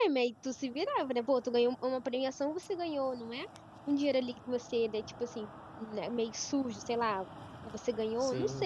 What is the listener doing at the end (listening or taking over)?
listening